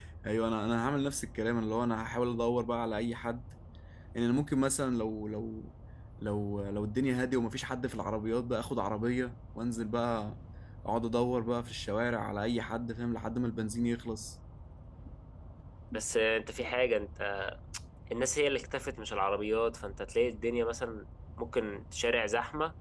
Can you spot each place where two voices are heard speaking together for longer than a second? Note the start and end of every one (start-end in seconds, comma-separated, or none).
none